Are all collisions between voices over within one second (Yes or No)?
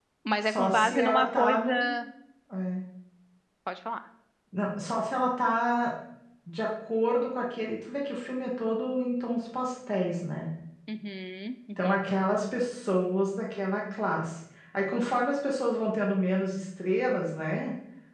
No